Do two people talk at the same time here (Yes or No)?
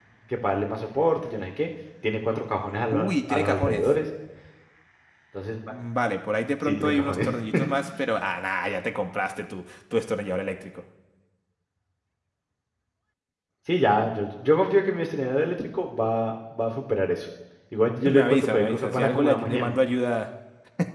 Yes